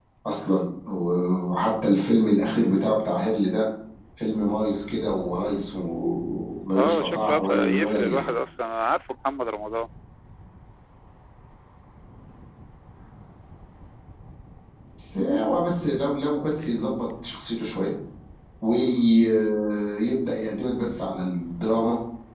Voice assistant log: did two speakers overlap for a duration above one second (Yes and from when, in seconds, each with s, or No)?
Yes, from 6.8 s